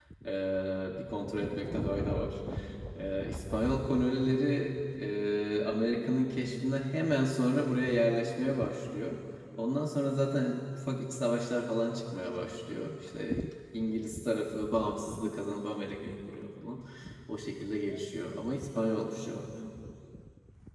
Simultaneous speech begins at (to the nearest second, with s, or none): none